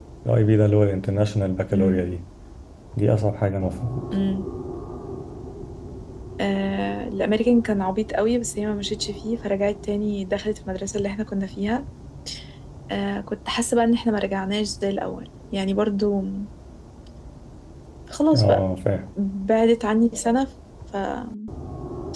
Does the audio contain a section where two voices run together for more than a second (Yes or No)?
No